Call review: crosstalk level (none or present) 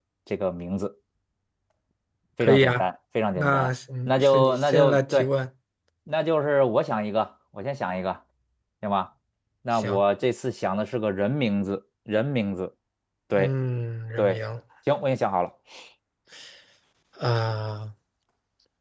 present